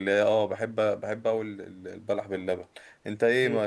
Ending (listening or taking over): listening